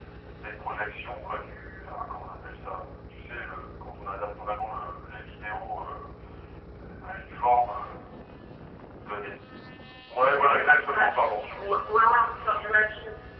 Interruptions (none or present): present